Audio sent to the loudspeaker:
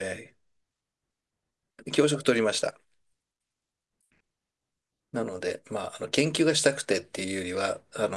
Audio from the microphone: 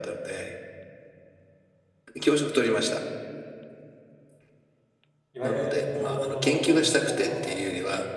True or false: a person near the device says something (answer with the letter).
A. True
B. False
A